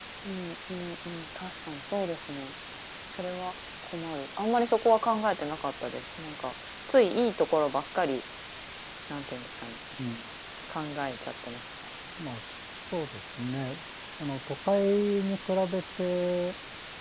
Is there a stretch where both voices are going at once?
No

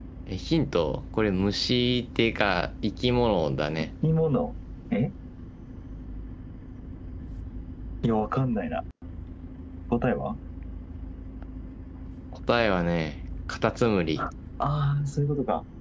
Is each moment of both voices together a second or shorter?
Yes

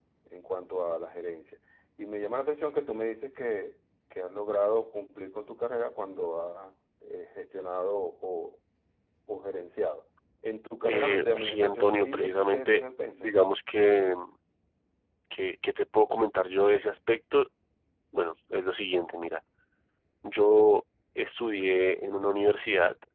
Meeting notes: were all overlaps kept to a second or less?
No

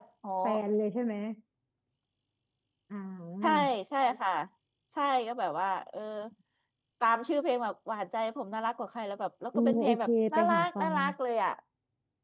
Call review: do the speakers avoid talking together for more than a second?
No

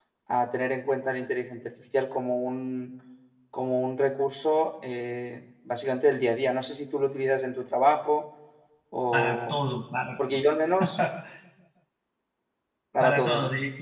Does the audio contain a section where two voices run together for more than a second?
No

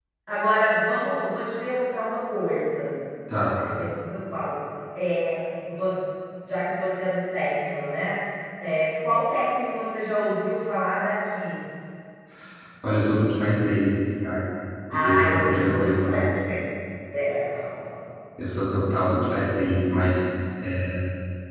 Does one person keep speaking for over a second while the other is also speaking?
Yes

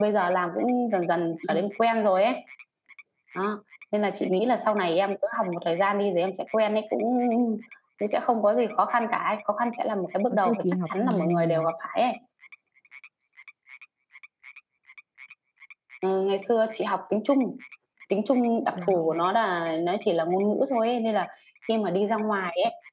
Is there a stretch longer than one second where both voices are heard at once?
Yes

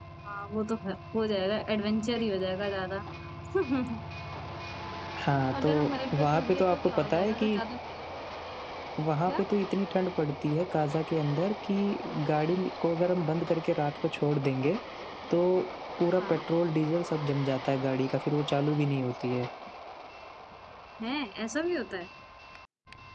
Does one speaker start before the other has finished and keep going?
Yes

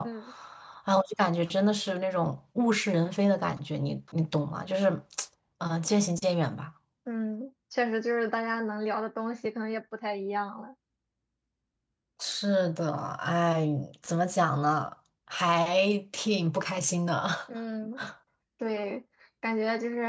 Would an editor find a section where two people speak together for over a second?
No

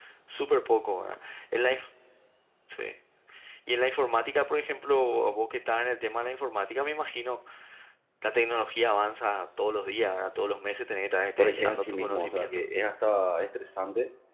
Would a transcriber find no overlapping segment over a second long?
No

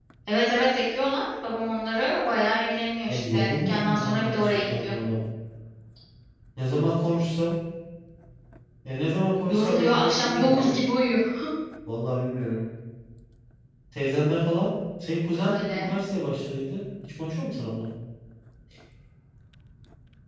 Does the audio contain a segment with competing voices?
Yes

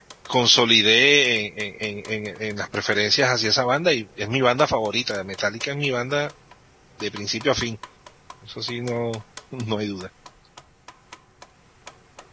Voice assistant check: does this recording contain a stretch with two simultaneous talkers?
No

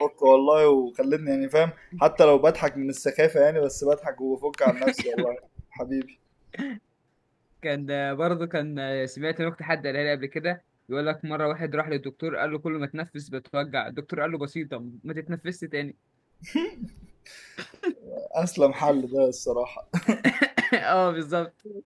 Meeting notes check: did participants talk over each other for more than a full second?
No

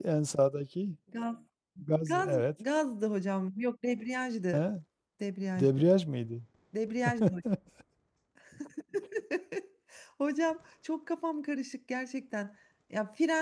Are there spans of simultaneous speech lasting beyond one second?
No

